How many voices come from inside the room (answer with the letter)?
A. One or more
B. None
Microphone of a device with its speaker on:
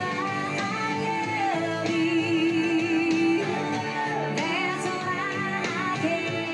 B